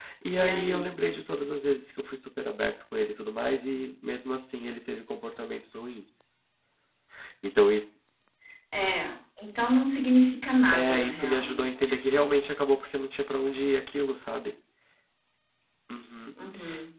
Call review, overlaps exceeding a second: present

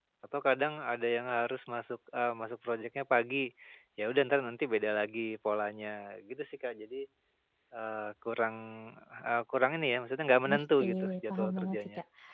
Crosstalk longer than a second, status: present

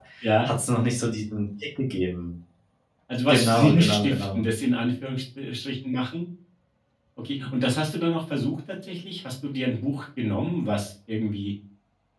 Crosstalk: present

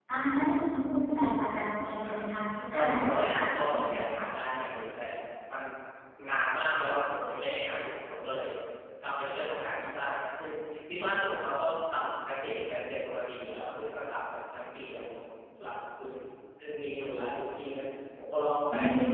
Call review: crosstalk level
present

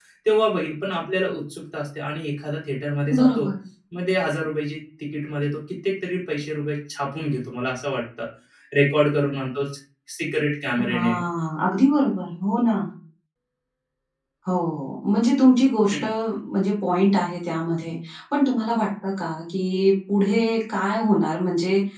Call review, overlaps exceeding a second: none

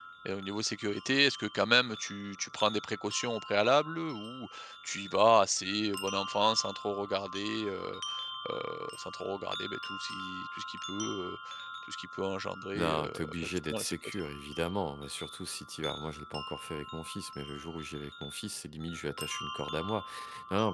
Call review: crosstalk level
present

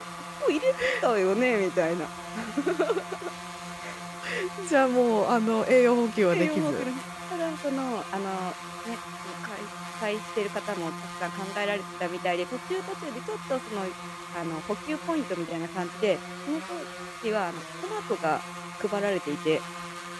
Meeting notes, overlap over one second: none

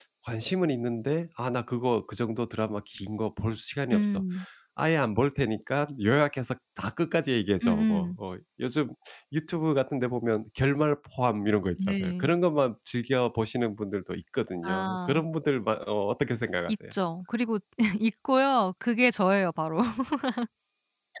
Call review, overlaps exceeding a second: none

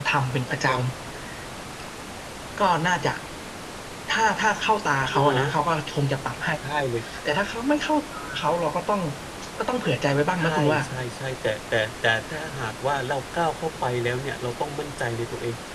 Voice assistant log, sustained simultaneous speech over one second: none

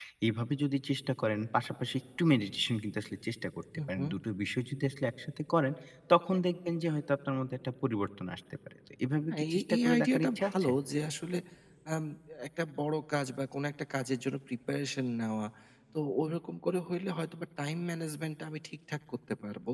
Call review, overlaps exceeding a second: present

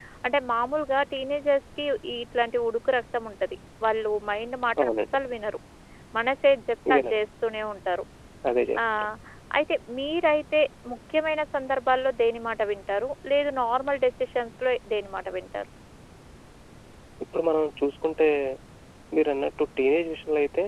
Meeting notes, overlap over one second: none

